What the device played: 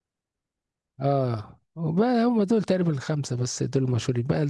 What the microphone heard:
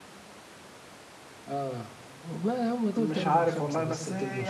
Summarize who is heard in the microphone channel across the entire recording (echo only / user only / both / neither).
both